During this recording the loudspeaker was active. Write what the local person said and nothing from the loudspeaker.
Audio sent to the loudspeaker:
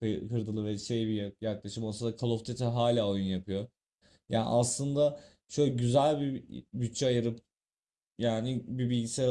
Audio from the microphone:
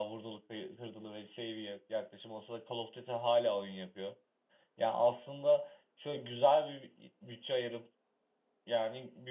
none

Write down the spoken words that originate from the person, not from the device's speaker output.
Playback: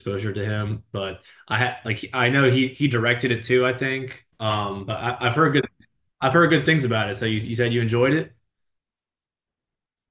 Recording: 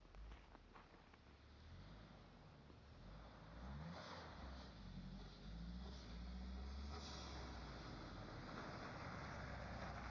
none

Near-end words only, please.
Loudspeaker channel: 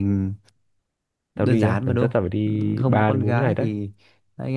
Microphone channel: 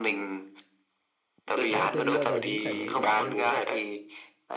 nếu mà chưa đi bao giờ thì cứ trải nghiệm thử xem

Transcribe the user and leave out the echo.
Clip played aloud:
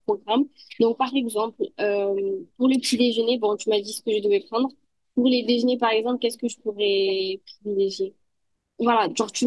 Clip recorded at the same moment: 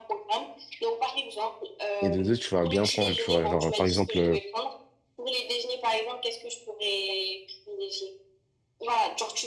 Et de deux, tu vas bien prendre, tu vois. Genre, par exemple, euh,

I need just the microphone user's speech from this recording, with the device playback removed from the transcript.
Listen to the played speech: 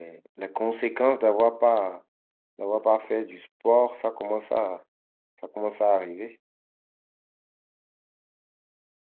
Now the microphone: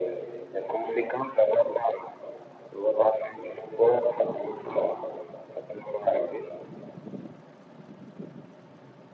none

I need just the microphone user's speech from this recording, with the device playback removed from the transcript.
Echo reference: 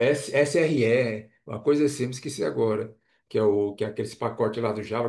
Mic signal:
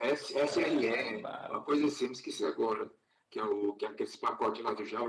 é, é, ba-

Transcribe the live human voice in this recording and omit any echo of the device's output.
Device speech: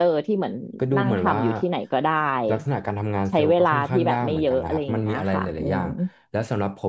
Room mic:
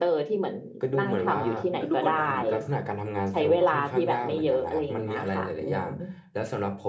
อ๋อมันก็ดูกดดันเหมือนกันครับ

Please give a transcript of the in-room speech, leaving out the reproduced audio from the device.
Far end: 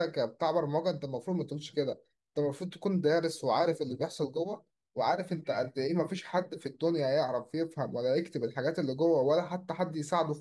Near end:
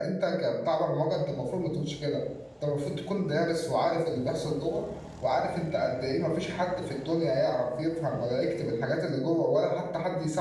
none

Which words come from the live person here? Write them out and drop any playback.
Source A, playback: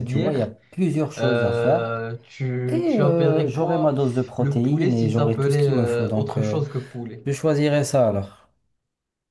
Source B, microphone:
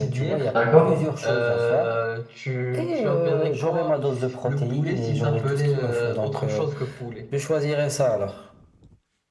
D'accord?

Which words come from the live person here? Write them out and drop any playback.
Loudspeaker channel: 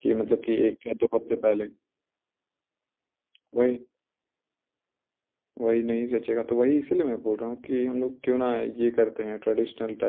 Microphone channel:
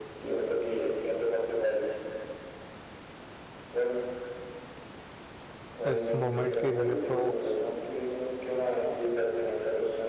इस मोमेंट के लिए तो

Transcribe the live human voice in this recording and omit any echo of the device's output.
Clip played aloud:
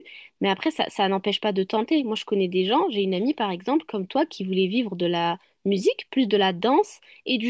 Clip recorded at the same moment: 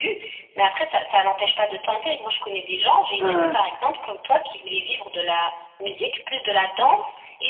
euh,

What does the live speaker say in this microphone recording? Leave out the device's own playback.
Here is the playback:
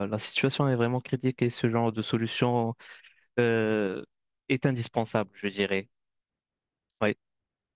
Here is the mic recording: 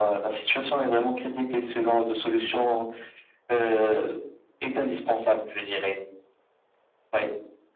none

